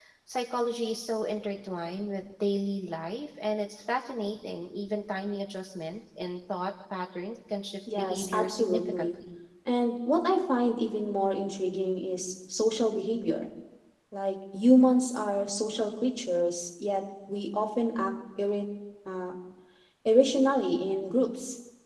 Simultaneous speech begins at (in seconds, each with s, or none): 7.9 s